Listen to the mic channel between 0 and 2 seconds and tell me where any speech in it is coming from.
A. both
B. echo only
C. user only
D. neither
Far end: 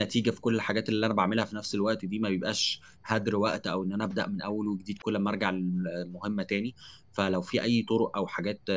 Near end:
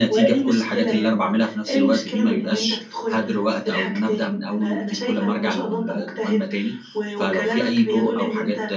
A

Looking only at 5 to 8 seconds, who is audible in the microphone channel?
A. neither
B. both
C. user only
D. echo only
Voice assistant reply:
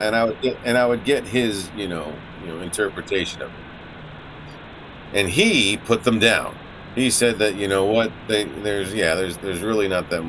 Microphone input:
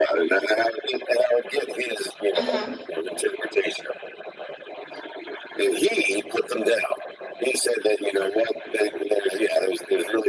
D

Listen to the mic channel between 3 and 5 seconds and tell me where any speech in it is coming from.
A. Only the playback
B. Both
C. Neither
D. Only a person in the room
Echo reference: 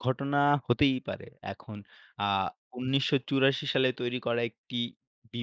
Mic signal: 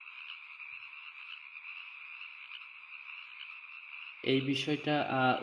D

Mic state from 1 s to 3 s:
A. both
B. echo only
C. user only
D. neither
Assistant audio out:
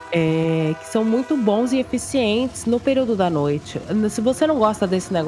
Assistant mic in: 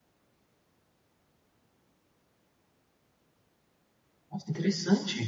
D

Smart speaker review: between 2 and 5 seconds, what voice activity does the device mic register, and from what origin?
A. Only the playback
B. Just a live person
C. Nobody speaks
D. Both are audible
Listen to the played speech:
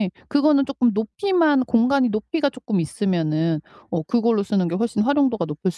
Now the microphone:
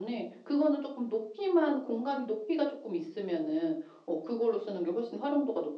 A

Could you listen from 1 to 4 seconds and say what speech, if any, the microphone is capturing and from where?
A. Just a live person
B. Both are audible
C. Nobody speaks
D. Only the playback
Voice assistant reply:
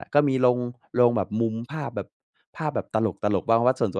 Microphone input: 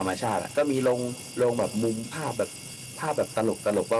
D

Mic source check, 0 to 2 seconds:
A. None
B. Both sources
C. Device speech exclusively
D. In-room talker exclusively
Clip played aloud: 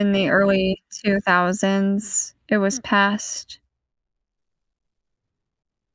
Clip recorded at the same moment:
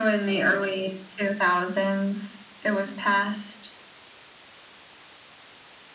C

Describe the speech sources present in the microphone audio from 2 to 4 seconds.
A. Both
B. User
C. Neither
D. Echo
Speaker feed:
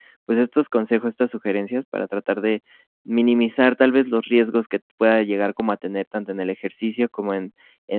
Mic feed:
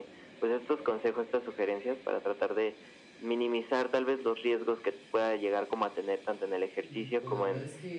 D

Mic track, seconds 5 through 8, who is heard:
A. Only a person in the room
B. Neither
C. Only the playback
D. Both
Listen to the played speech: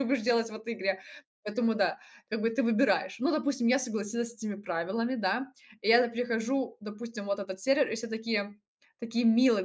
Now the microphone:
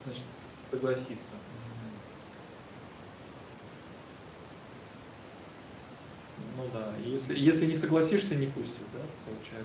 A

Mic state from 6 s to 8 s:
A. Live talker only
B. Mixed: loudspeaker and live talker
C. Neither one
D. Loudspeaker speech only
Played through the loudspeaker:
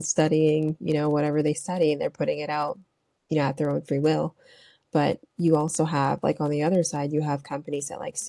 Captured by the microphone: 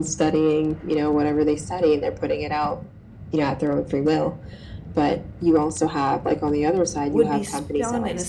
B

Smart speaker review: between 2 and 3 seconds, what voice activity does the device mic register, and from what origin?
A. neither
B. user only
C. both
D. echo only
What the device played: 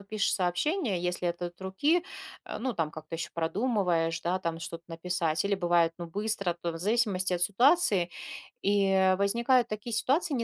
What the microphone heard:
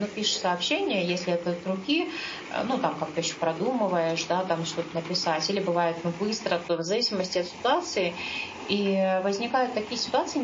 D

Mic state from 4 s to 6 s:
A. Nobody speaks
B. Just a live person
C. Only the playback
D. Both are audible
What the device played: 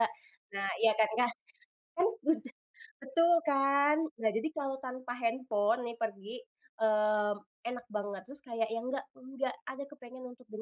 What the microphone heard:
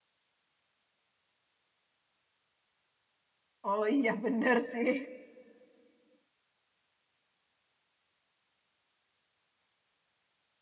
B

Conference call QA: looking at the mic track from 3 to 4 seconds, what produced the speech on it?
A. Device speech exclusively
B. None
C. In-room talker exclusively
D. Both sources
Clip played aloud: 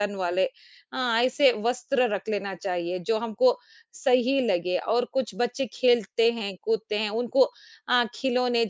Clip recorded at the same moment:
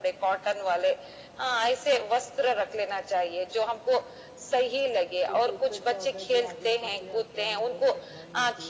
A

